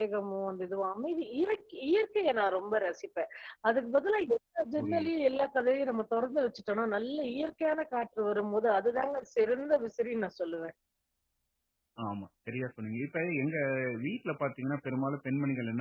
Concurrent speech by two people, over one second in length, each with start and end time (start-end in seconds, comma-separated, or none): none